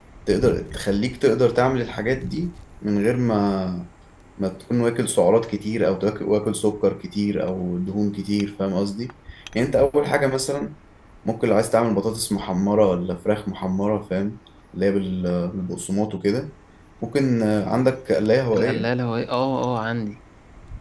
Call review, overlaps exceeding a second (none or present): none